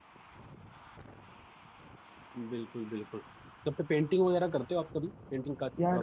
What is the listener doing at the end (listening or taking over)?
taking over